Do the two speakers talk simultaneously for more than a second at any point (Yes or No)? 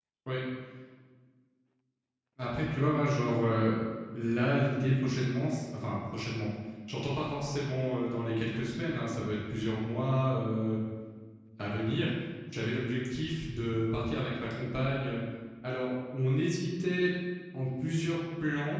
No